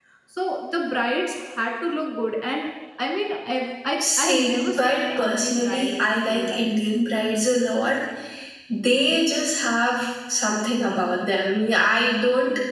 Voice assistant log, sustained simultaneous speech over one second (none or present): present